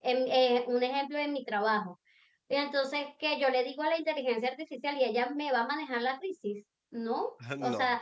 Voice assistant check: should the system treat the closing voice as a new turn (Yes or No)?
No